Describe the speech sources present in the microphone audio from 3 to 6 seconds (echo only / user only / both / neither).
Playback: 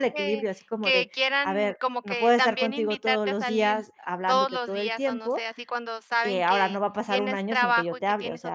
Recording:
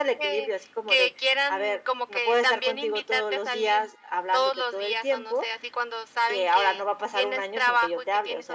echo only